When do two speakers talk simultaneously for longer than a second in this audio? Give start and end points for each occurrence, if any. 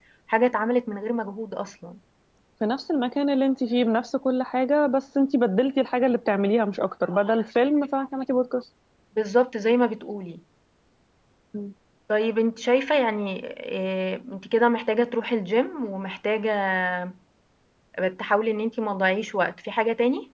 none

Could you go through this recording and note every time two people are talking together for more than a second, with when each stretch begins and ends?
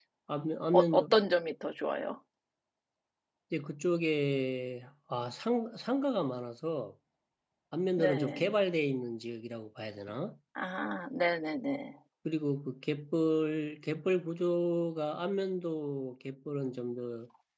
none

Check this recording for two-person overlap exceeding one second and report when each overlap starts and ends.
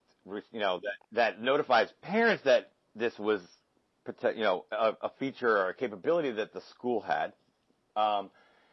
none

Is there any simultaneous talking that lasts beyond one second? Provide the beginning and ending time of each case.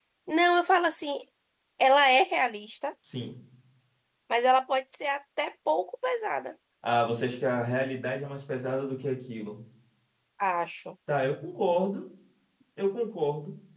none

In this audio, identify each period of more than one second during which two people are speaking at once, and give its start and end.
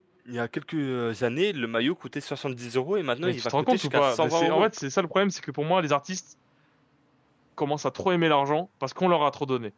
3.2-4.7

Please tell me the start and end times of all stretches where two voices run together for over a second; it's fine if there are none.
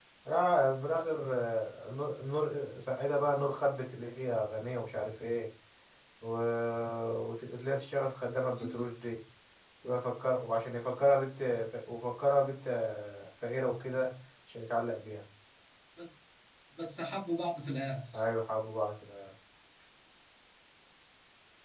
none

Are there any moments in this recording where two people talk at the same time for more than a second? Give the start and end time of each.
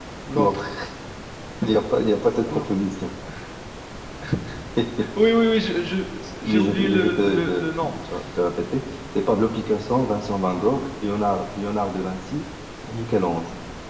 6.4-7.9

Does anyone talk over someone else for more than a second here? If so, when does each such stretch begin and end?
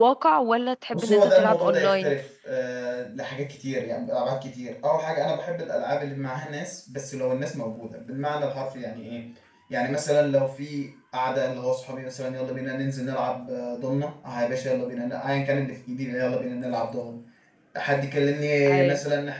0.9-2.1

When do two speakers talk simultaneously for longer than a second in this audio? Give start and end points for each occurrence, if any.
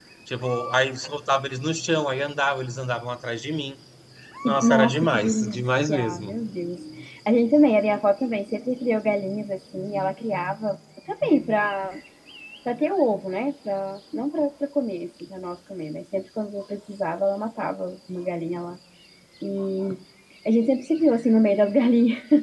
4.4-6.4

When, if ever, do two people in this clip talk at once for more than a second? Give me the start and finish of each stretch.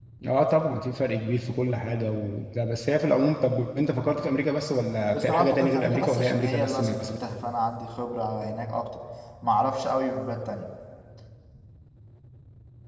5.1-7.1

